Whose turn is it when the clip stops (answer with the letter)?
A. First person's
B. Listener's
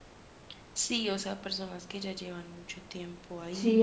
B